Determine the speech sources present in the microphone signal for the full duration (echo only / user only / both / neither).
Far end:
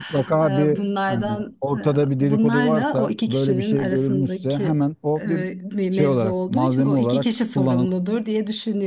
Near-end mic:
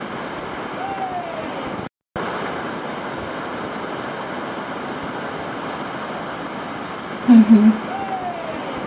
user only